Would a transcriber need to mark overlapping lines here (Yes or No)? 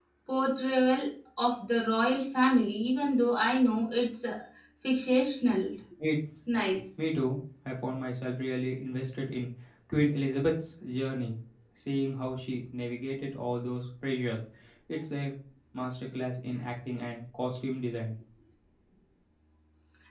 No